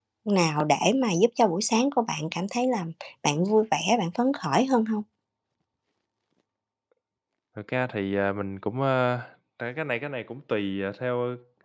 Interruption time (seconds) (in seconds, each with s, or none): none